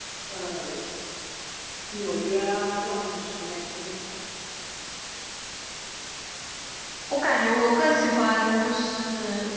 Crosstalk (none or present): none